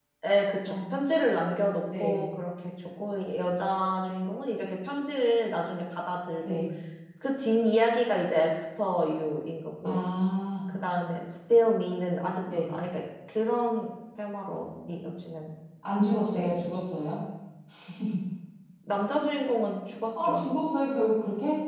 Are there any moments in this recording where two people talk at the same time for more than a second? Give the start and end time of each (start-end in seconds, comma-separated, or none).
none